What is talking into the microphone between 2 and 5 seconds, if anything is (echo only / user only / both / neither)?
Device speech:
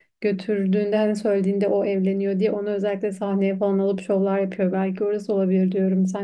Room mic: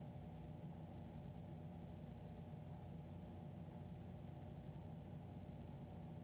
neither